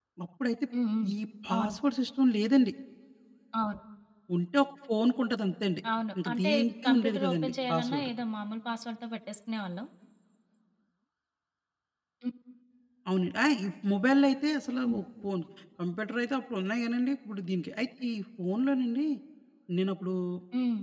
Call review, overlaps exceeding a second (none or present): present